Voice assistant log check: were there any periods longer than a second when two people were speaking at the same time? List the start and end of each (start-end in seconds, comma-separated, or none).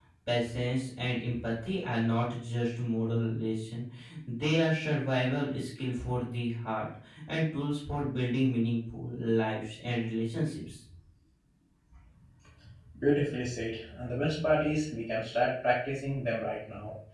none